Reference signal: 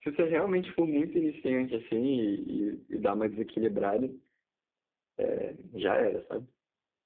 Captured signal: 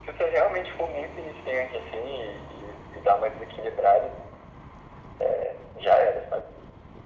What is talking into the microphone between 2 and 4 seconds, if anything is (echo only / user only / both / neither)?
echo only